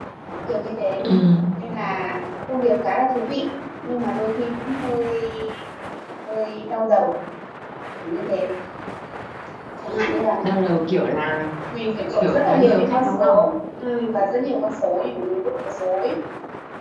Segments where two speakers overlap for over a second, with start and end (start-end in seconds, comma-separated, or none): 12.2-13.4